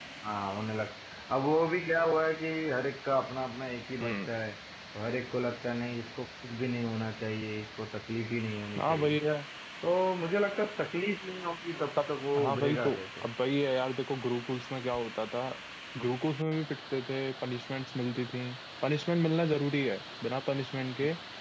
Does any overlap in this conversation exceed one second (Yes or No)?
Yes